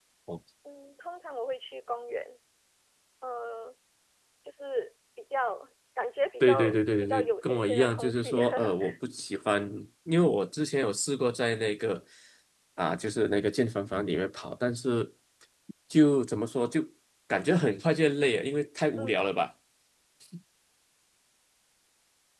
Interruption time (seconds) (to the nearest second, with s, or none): 6 s